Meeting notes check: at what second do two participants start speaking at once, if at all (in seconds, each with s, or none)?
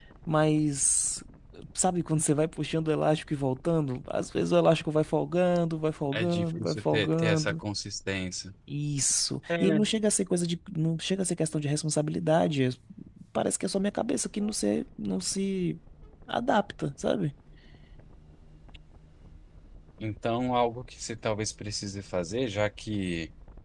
6.1 s